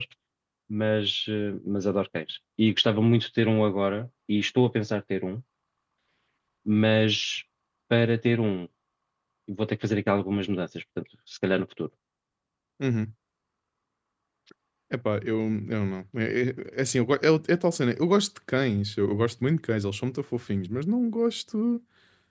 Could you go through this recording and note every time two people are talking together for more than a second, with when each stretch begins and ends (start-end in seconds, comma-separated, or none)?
none